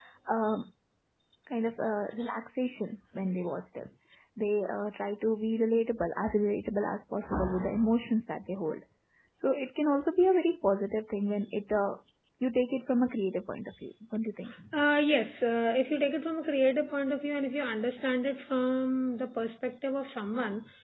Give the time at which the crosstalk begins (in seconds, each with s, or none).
none